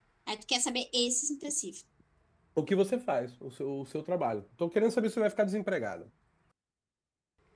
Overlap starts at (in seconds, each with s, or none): none